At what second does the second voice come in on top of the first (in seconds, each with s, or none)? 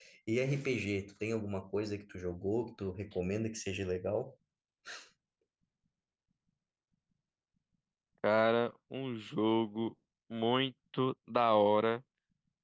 none